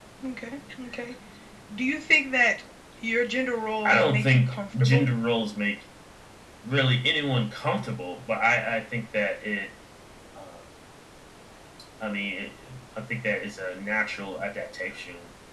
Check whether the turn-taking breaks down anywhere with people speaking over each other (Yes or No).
Yes